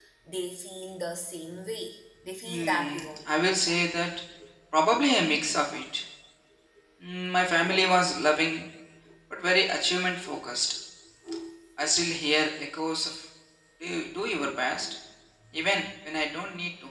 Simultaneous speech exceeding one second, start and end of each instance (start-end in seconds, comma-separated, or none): 2.4-3.8